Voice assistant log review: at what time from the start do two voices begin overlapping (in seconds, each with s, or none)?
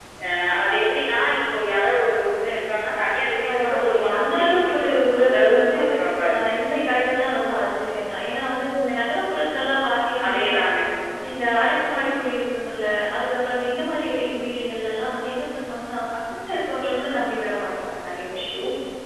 3.5 s